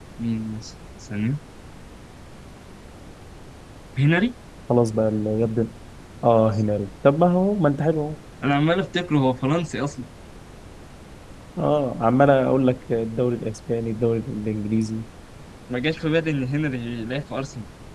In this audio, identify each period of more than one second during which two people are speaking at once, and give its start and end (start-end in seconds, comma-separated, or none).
none